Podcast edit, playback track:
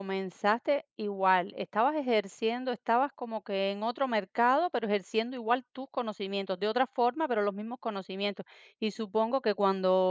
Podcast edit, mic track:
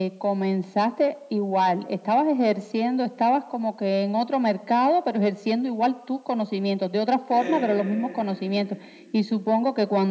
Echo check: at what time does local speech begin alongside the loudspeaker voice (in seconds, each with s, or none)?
7.3 s